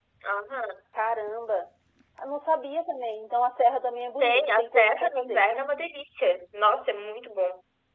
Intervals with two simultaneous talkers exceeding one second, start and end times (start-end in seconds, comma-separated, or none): 4.2-5.4